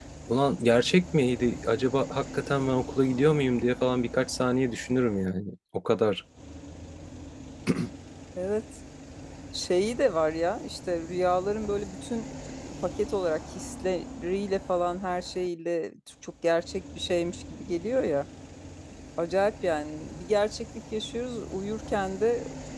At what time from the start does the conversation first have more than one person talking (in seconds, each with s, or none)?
none